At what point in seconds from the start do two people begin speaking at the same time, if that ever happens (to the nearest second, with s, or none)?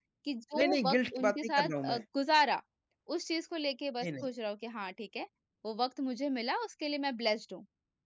1 s